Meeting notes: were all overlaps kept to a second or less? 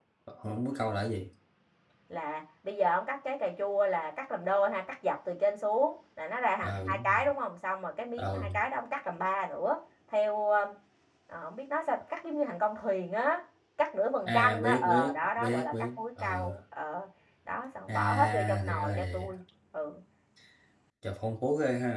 No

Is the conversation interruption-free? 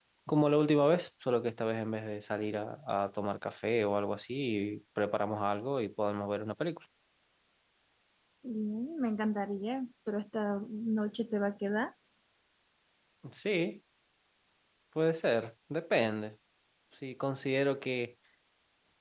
Yes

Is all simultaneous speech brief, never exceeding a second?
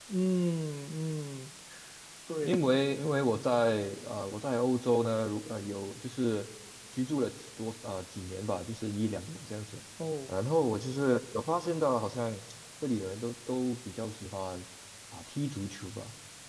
Yes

